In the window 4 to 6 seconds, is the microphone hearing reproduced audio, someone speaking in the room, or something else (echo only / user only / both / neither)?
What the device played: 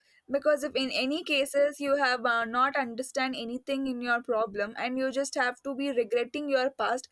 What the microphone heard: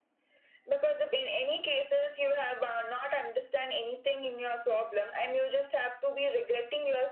echo only